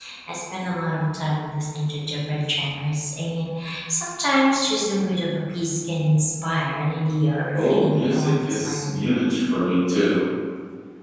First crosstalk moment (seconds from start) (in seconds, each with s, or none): 7.5 s